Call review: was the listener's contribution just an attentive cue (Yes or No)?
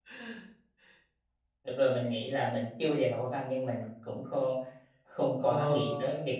No